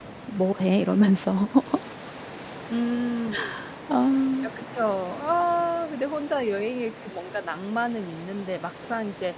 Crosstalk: none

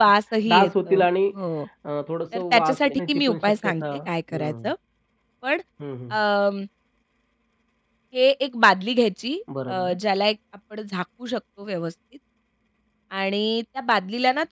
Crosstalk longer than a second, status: present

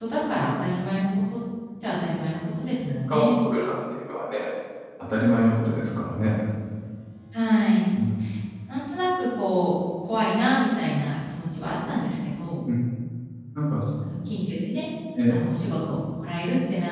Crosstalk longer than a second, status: none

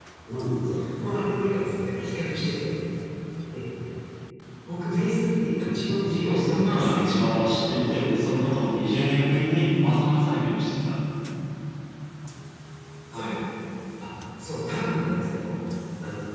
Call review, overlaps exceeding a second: present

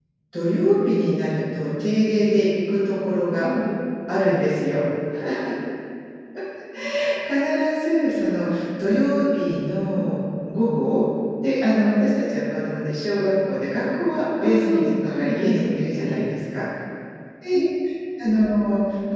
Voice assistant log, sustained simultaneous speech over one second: present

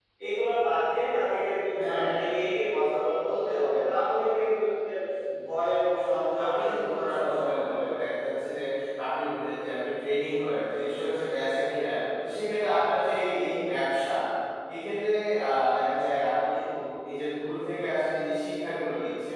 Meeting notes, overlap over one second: present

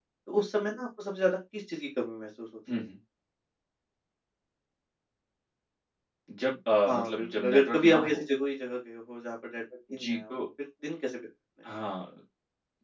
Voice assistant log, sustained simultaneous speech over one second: present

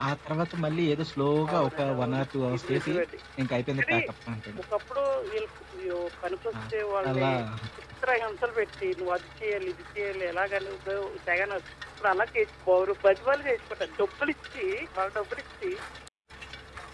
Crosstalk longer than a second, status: present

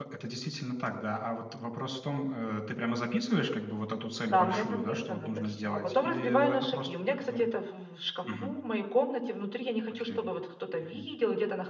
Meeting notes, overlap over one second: present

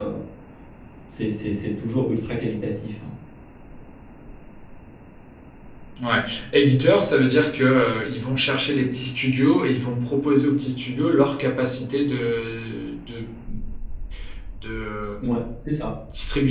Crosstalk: none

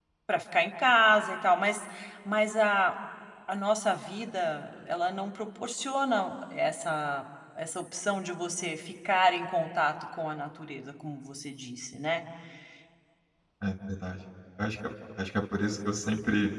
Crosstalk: none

